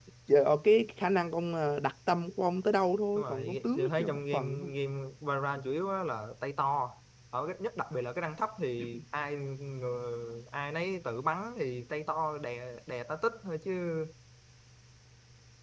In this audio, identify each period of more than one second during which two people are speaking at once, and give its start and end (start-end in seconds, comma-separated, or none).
3.2-4.7